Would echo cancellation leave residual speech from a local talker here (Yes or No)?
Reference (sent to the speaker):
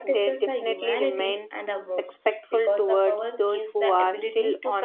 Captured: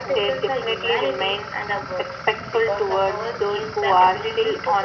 No